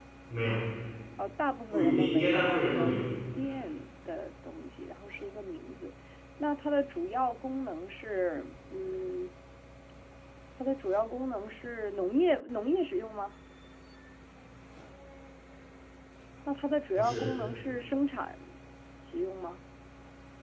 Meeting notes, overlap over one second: present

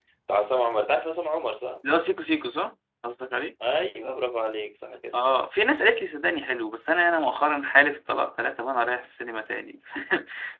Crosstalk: none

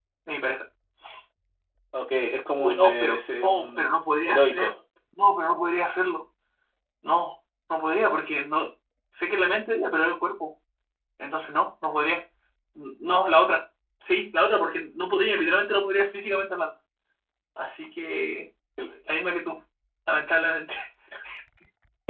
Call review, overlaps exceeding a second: present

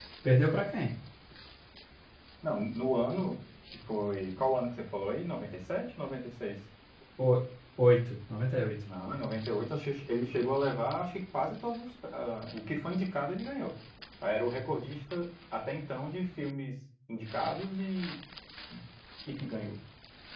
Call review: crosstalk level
none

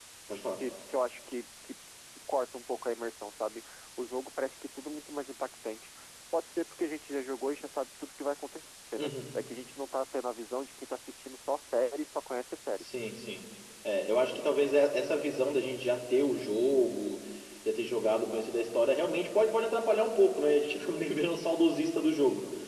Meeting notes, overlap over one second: none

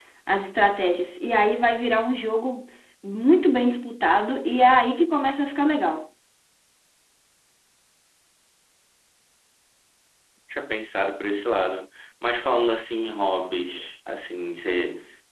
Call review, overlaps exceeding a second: none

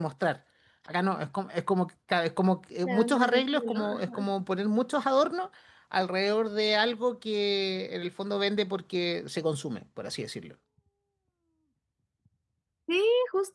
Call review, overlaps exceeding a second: present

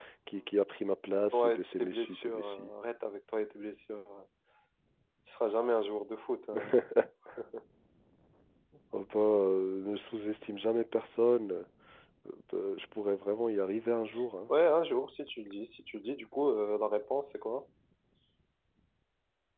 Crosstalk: present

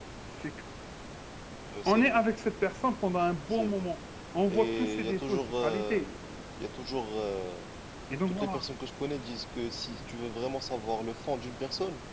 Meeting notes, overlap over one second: present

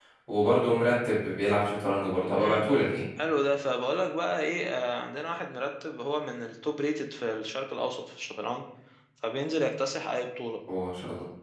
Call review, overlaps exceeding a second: none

